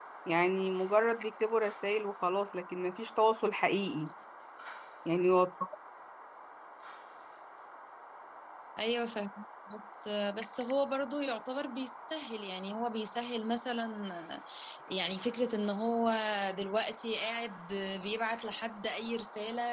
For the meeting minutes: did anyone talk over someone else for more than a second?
No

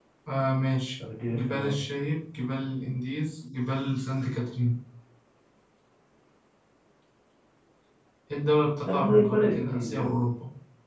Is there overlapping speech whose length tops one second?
Yes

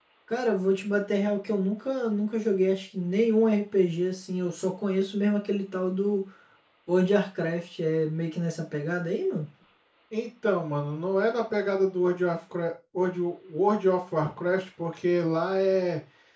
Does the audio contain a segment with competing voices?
No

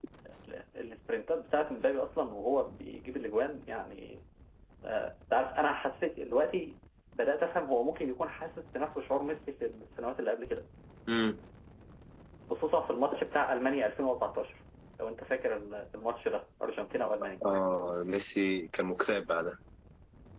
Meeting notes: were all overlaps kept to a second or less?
Yes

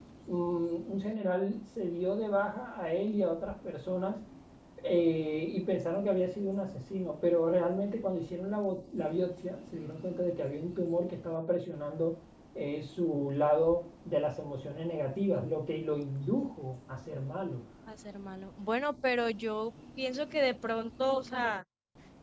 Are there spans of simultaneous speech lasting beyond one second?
No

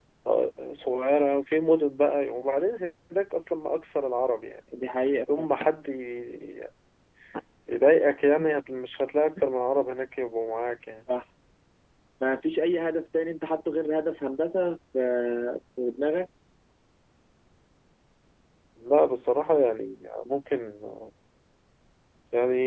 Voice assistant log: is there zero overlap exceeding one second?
Yes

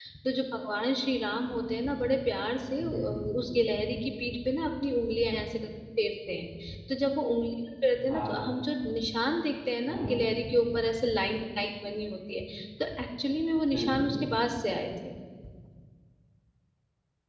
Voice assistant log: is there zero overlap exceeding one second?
Yes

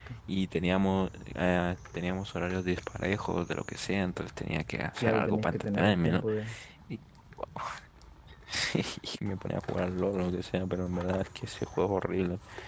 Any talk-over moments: Yes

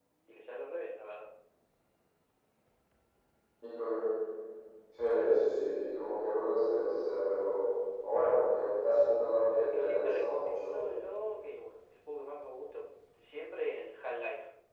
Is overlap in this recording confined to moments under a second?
No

